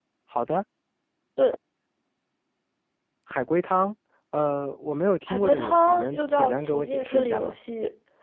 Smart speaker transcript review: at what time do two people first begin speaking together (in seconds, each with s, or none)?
5.3 s